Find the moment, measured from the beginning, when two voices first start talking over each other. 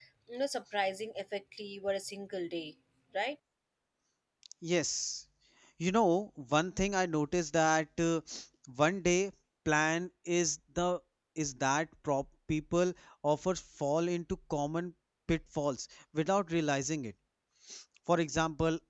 none

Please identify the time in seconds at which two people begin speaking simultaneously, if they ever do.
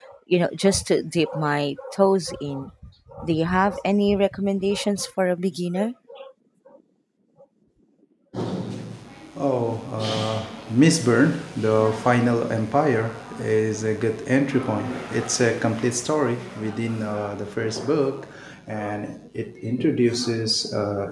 none

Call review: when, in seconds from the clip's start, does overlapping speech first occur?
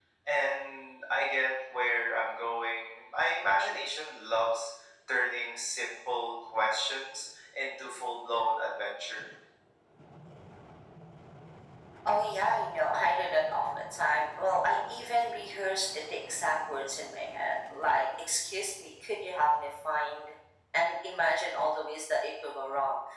none

